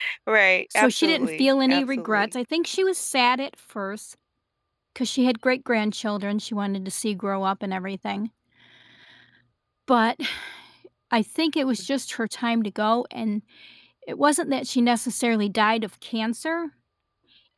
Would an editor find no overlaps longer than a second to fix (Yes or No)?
No